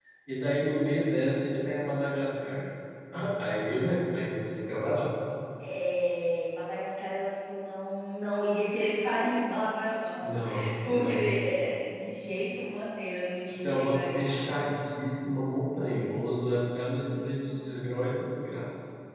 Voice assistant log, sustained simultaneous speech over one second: present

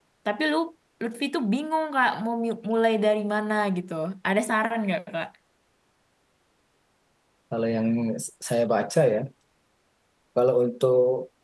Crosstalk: none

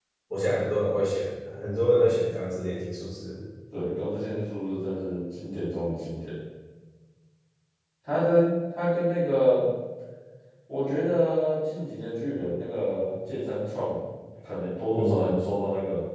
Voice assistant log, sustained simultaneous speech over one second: none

